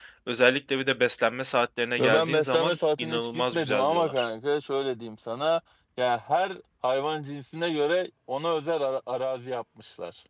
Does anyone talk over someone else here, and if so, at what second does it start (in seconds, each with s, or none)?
2.0 s